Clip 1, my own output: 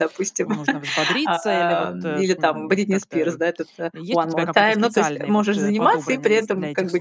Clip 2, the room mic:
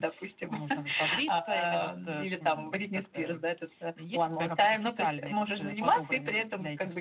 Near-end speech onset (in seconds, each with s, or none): none